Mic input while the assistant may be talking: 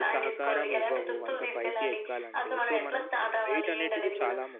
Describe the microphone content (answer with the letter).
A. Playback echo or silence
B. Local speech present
B